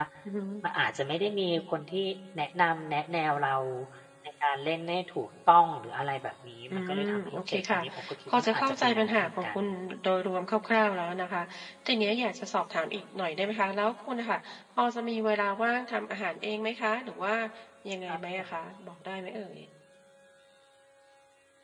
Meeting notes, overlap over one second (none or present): present